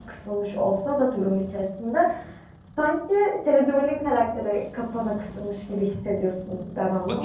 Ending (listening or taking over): taking over